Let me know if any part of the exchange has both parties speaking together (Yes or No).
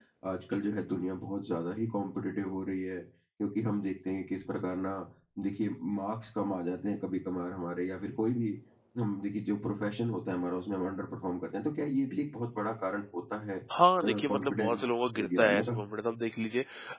Yes